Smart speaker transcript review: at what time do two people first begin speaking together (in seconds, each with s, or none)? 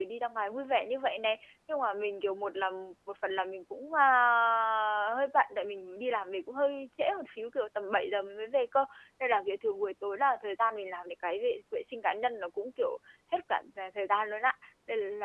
none